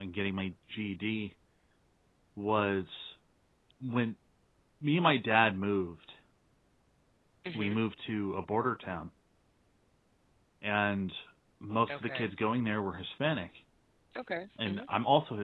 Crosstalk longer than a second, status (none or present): none